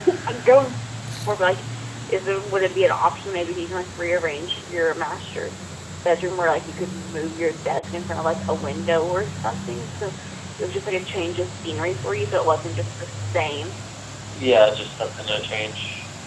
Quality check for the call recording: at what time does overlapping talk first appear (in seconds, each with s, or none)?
none